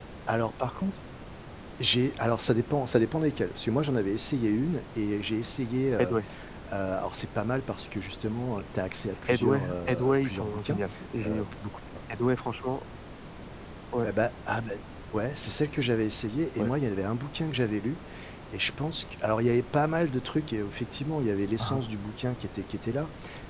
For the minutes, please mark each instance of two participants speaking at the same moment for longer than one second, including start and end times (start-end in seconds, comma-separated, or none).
9.3-10.8